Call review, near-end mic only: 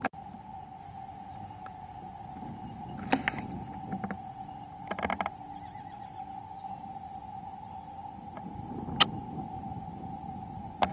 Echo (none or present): none